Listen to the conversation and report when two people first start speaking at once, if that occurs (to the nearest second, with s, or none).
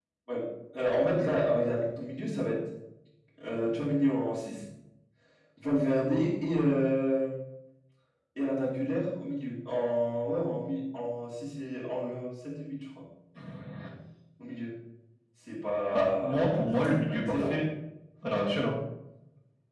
16 s